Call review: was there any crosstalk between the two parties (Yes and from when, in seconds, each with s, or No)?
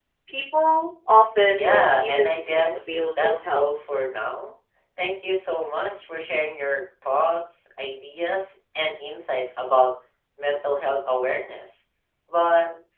Yes, from 1.5 s